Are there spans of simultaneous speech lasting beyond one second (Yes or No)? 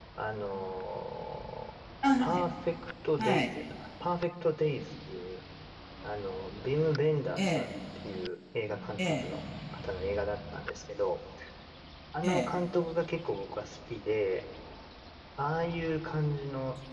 No